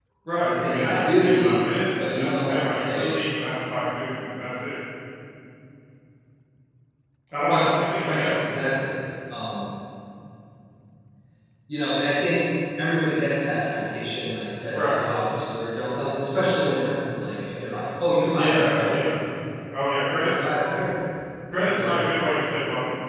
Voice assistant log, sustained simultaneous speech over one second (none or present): present